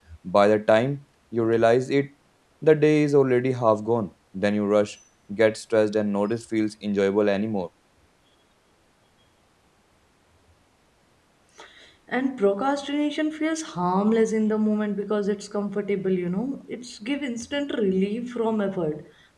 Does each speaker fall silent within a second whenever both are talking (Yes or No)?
Yes